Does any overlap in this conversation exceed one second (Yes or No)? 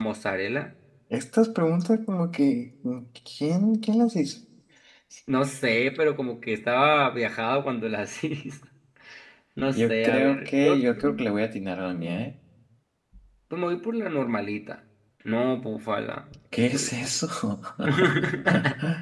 Yes